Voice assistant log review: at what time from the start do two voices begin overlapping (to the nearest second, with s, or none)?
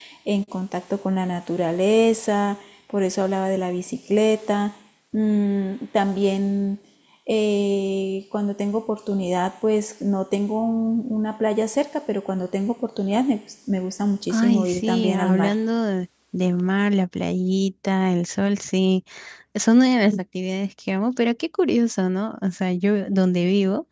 14 s